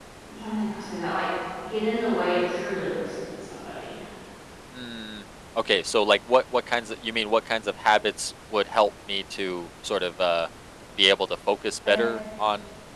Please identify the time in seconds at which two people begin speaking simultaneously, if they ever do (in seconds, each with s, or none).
none